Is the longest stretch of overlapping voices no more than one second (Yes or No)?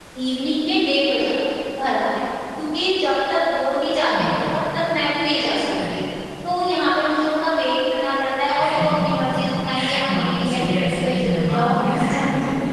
No